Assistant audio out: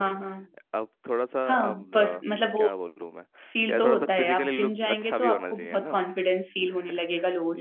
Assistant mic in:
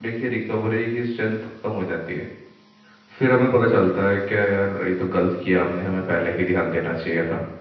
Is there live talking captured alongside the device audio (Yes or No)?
Yes